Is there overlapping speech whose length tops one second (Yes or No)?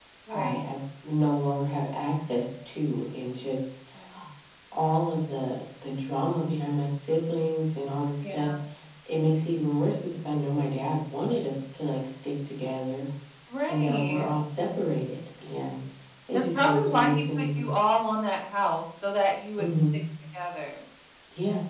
Yes